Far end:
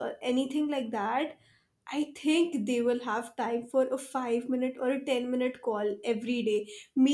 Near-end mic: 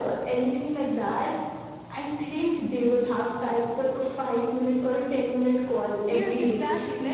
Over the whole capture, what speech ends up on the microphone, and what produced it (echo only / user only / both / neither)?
both